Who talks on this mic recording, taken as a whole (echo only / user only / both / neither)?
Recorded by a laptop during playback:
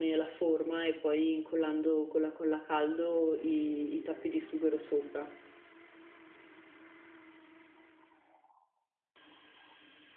user only